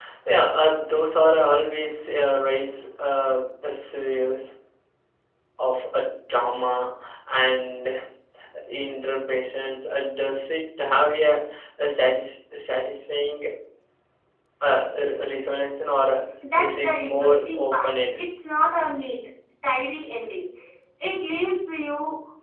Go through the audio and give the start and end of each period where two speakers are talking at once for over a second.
16.6-18.2

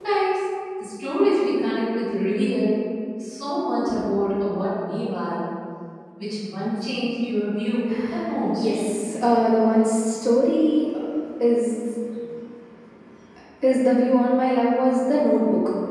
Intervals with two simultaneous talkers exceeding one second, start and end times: none

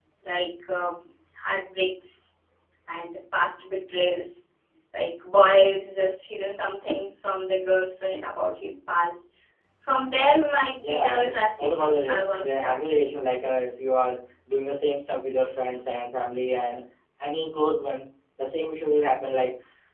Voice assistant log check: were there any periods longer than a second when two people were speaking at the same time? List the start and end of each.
10.8-13.0

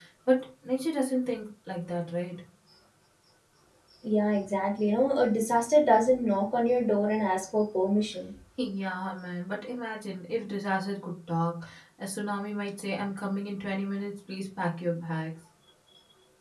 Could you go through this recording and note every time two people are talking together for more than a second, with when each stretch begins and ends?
none

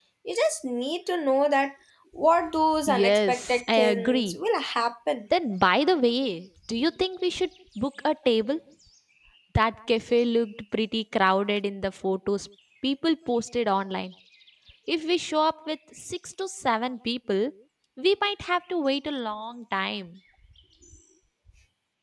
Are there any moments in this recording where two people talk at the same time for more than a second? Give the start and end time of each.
2.9-4.4

